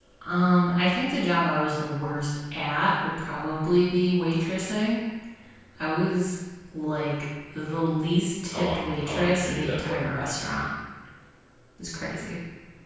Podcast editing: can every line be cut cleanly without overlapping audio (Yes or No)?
No